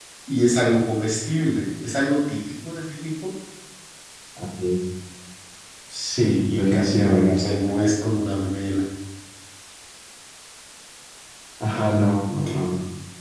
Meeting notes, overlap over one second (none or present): present